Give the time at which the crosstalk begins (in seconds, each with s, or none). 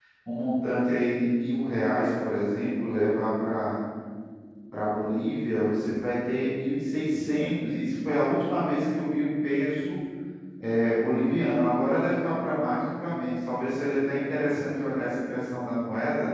none